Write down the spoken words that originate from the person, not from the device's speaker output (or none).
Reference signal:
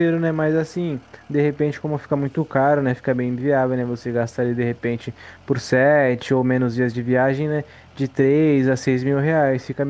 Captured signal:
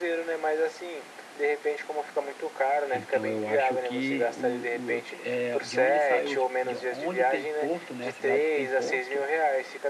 então eu acho que o, o é, de onde sai os, de onde tem porto, né? A cidade que tem porto,